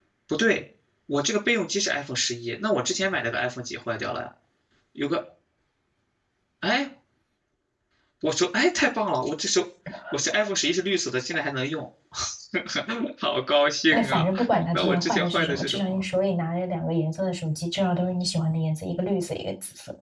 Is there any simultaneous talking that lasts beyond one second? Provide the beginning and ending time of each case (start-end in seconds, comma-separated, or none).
14.7-16.0